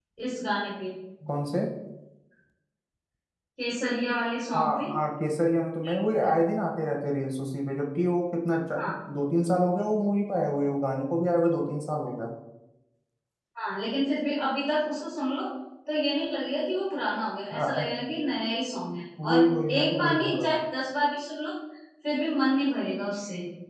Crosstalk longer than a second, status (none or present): present